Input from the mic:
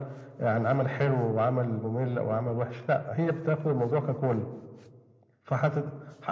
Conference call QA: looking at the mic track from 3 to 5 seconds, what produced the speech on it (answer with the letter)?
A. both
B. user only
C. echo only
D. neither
C